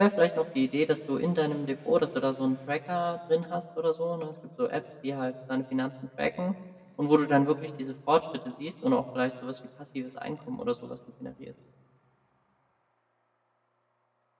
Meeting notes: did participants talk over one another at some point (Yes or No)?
No